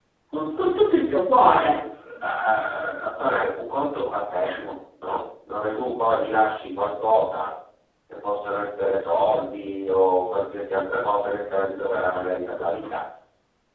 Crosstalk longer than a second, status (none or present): none